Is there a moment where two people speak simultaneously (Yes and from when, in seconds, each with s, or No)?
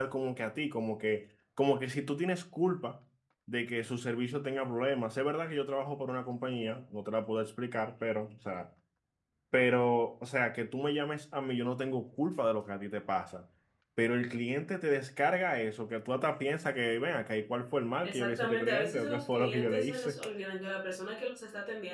Yes, from 18.0 s